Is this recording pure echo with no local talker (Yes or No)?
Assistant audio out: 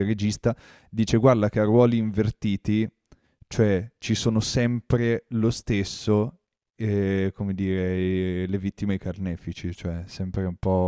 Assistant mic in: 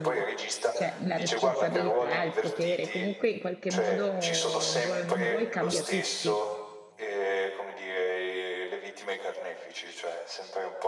No